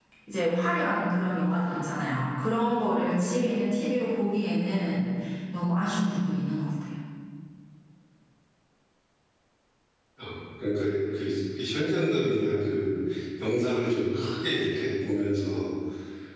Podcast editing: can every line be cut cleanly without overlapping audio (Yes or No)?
Yes